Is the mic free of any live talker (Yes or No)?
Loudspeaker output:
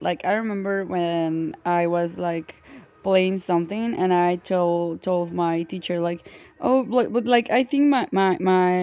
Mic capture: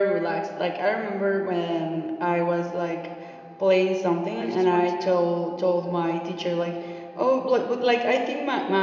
No